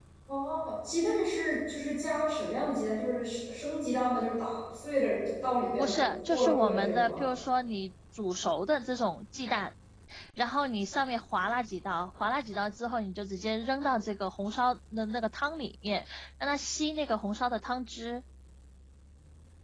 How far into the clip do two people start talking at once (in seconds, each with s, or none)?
5.7 s